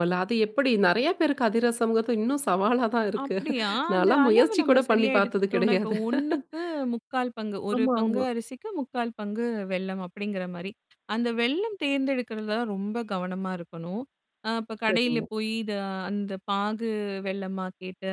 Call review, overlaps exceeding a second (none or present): present